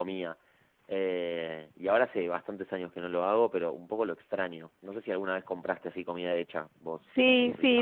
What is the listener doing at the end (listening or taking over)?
taking over